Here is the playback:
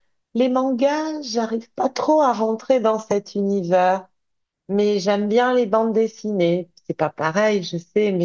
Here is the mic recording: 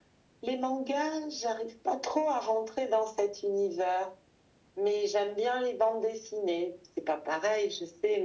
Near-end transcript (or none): none